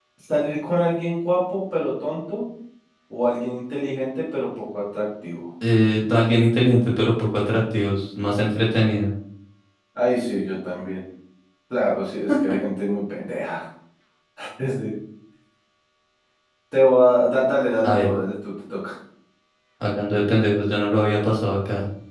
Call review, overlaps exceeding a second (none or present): none